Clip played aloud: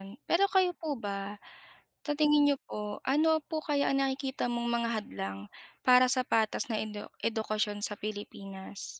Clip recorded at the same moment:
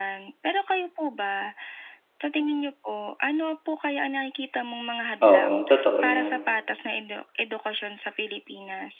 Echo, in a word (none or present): present